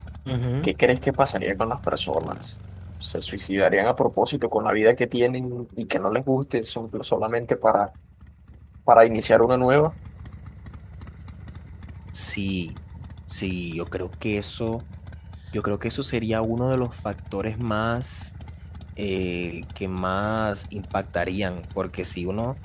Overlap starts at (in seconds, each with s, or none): none